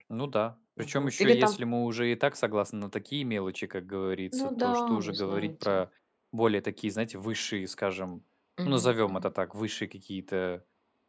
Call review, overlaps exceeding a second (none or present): present